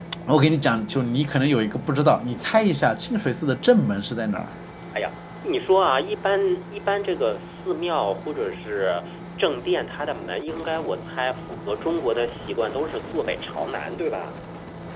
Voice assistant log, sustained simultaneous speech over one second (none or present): none